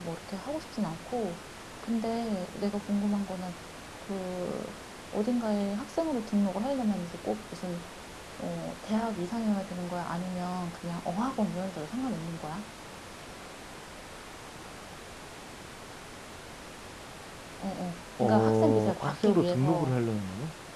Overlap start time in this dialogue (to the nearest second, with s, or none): 18 s